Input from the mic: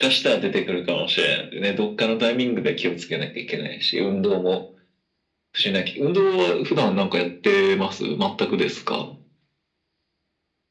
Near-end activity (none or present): none